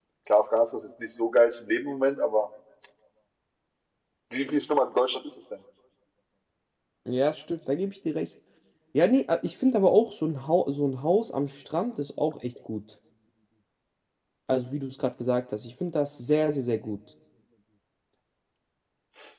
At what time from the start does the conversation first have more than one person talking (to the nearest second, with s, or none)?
none